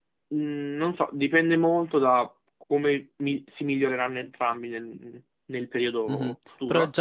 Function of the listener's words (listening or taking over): taking over